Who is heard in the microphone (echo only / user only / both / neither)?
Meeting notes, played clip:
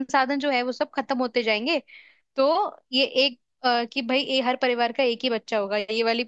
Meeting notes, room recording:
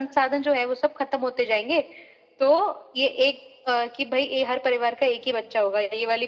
echo only